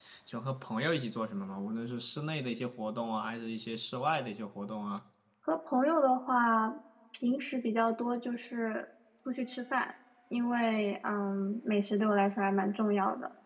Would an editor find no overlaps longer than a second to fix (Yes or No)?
Yes